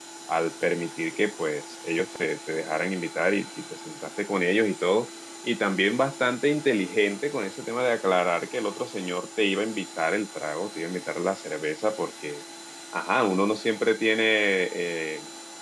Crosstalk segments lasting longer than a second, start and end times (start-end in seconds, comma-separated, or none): none